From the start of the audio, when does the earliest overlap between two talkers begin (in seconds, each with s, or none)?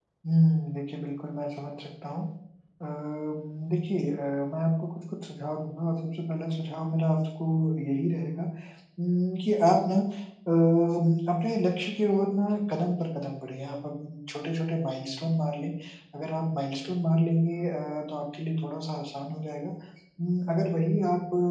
none